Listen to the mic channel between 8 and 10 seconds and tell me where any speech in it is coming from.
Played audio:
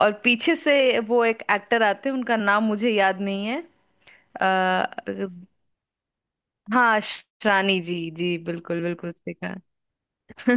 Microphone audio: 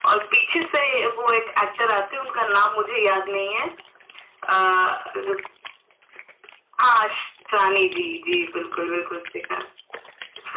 echo only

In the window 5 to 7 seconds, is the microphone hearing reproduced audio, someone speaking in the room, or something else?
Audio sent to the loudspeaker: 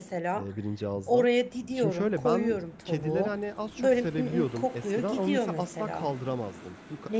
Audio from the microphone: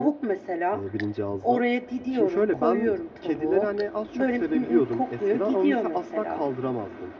echo only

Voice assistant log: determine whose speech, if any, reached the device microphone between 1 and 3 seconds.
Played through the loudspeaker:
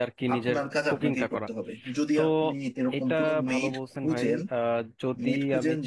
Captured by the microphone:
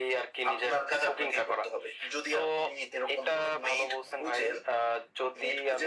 echo only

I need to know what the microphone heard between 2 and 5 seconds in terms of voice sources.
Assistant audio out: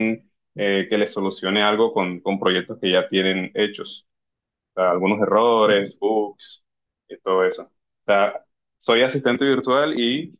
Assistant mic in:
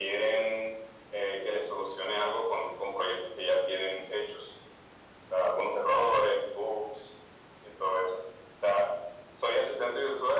echo only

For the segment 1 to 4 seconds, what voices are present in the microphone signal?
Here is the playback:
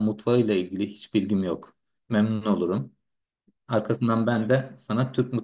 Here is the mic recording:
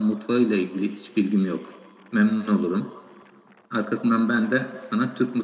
echo only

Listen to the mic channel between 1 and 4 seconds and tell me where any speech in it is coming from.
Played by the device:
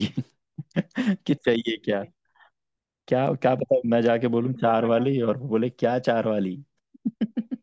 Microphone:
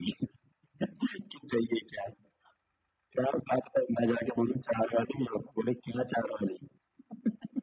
echo only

